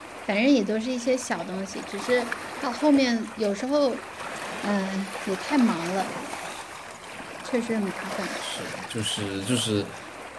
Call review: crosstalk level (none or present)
none